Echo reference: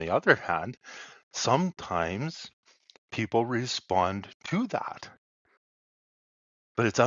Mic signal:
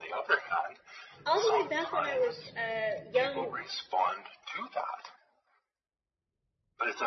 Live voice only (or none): all the way back when I was a young